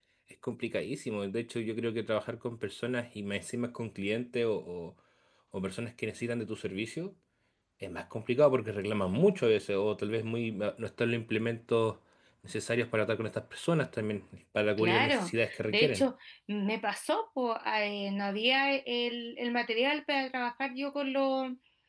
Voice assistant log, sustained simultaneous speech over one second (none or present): present